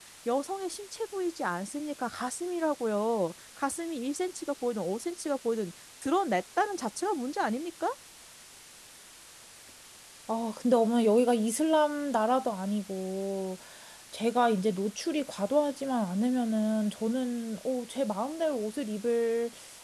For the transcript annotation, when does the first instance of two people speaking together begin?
none

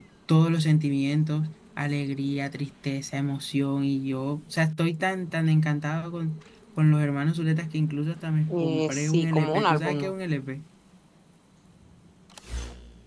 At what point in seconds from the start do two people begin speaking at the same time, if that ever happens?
8.5 s

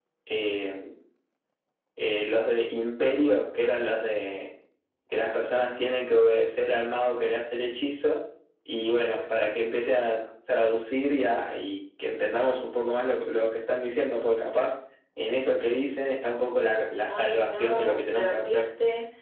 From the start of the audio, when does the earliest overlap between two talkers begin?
17.0 s

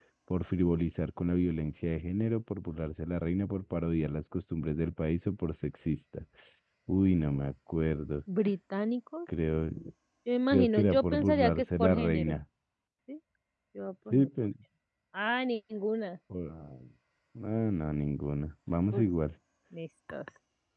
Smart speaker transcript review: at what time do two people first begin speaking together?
10.5 s

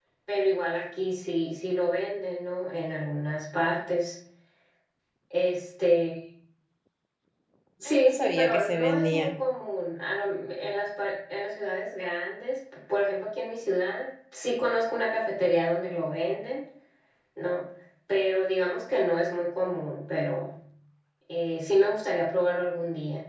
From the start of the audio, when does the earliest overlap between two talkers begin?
7.8 s

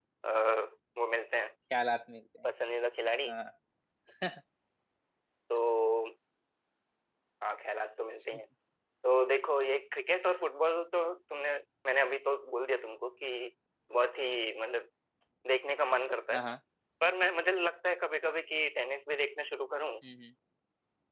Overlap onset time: none

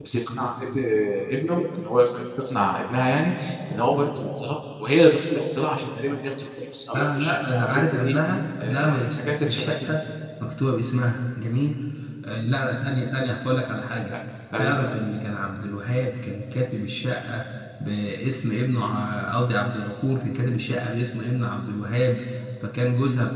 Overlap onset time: 6.9 s

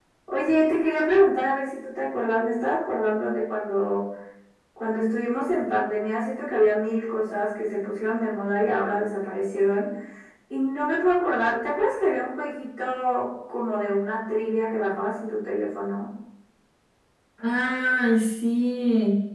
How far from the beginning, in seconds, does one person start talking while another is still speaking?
none

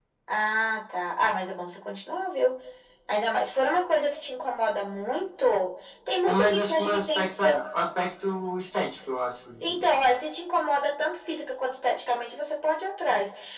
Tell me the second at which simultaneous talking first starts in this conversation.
6.2 s

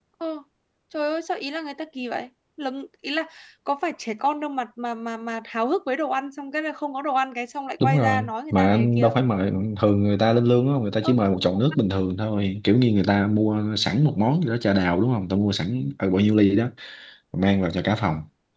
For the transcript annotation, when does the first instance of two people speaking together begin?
7.8 s

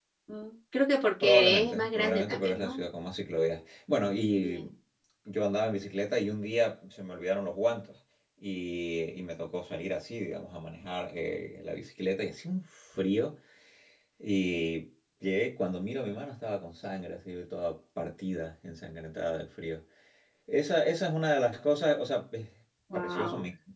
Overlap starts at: 1.2 s

